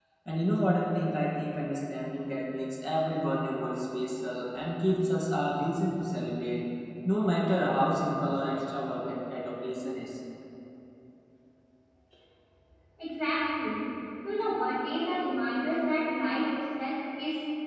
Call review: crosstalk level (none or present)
none